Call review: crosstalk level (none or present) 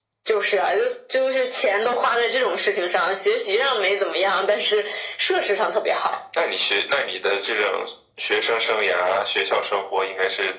none